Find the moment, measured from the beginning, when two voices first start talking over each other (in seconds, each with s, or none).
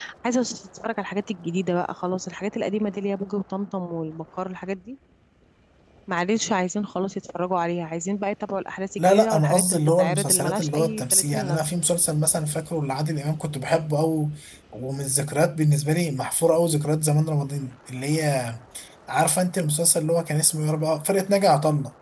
9.0 s